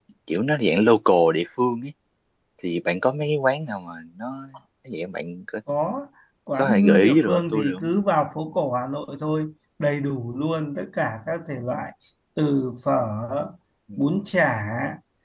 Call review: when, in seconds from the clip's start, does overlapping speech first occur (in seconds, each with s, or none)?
6.6 s